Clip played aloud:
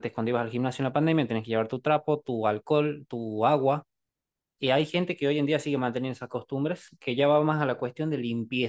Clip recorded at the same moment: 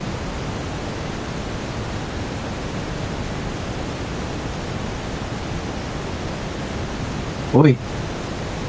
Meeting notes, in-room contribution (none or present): present